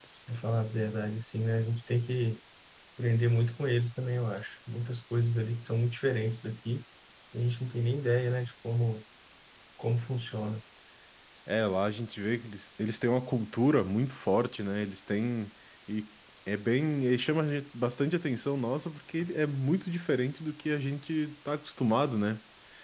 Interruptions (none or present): none